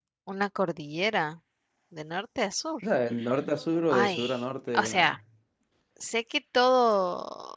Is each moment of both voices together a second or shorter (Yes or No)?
Yes